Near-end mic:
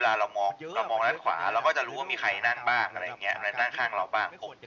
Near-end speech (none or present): present